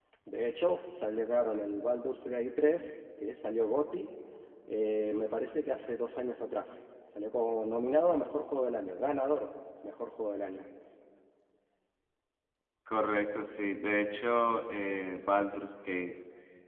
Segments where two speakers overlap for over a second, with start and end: none

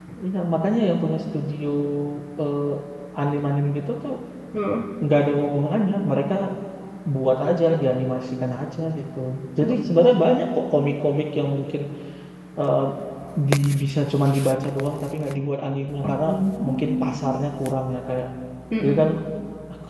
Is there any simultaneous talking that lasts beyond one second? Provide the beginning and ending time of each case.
none

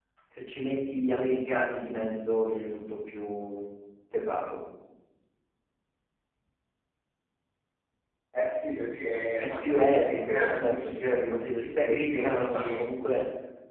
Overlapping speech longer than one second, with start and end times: 9.4-12.7

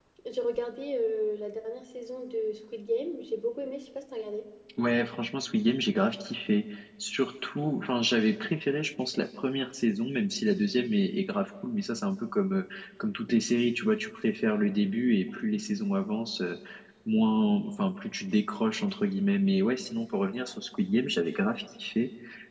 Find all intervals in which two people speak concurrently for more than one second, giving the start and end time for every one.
none

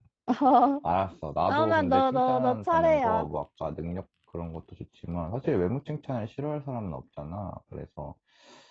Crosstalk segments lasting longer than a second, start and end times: 1.5-3.3

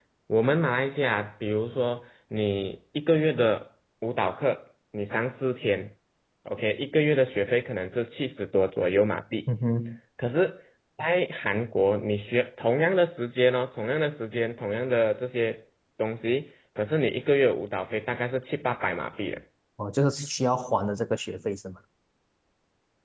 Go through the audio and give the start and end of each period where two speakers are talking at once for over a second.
none

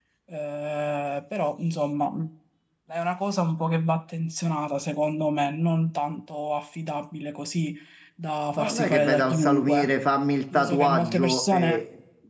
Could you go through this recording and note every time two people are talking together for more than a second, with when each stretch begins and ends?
8.6-9.8, 10.5-11.8

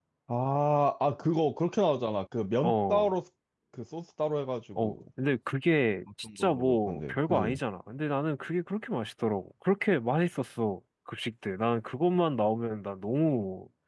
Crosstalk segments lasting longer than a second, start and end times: 6.4-7.6

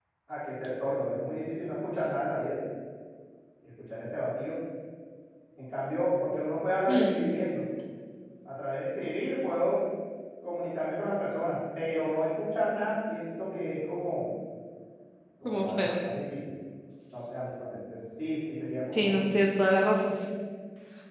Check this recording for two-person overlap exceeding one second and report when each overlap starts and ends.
none

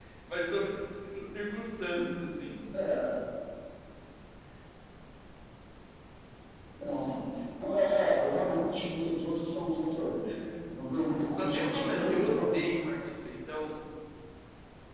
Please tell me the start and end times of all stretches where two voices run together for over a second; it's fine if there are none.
11.4-12.6

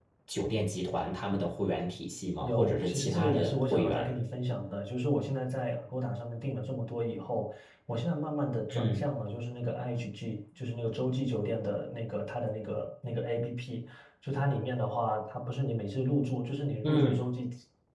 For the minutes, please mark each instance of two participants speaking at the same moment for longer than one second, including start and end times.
2.4-4.1

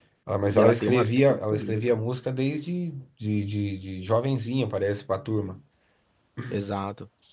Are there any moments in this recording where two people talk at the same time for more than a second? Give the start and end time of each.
0.6-1.8

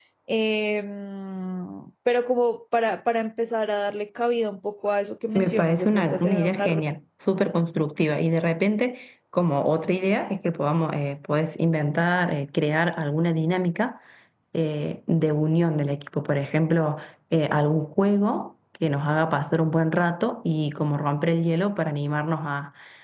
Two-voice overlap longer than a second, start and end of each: 5.4-6.6

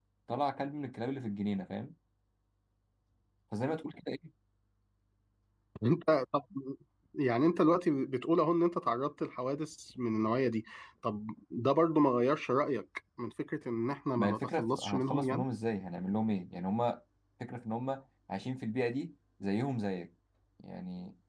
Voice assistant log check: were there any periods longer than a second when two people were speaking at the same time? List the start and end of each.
14.2-15.4

